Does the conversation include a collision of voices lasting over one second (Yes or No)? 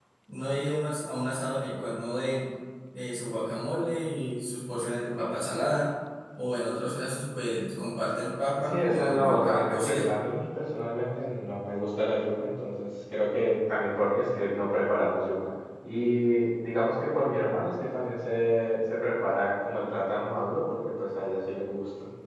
Yes